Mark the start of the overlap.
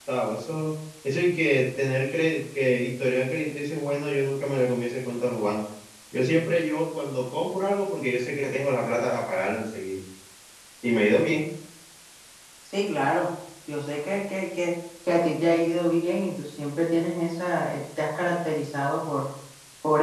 none

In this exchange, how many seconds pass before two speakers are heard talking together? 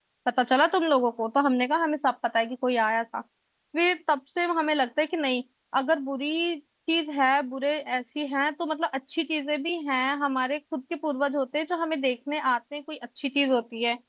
none

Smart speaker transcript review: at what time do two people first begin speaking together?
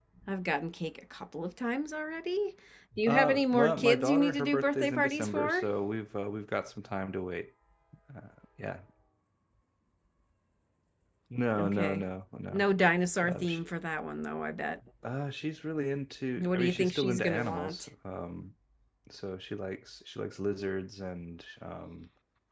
3.1 s

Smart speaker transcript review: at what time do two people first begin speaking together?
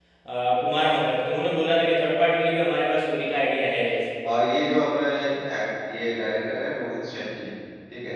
none

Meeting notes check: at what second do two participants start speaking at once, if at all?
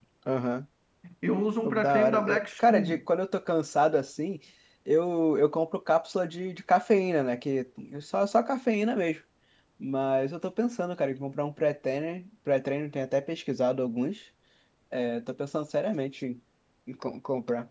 1.6 s

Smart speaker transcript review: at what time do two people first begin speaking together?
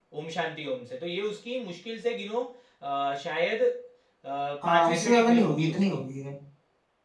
4.7 s

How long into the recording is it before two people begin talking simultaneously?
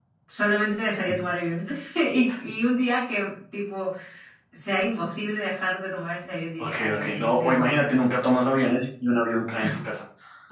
6.6 s

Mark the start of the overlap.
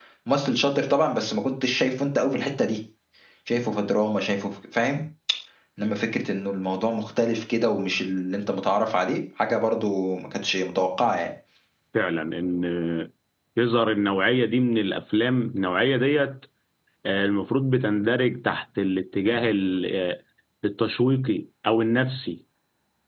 none

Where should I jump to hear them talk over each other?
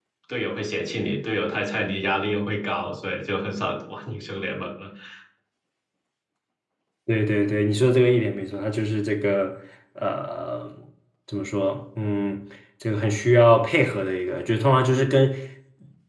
none

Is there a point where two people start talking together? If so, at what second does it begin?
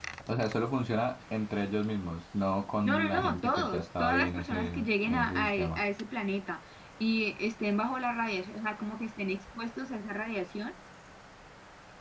2.8 s

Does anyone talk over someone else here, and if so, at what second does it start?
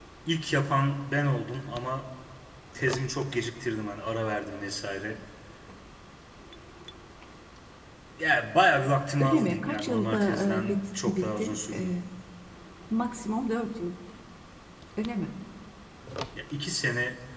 9.2 s

